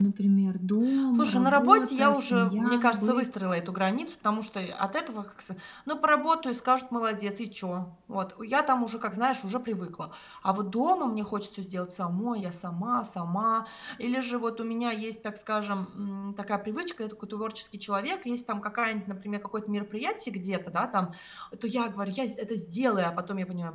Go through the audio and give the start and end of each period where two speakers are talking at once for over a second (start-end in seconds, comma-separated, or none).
1.2-3.2